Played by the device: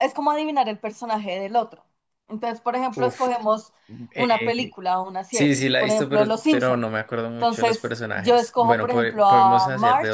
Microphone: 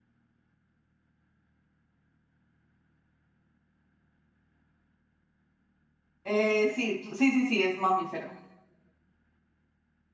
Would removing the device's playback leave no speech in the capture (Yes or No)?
No